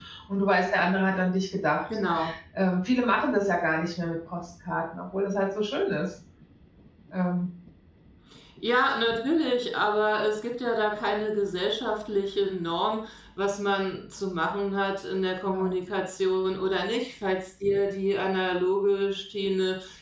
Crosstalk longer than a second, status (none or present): none